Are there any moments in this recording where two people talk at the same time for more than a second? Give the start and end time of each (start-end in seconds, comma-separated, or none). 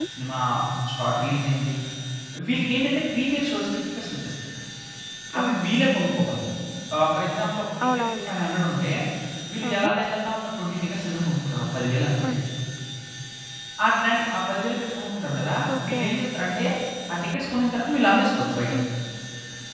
none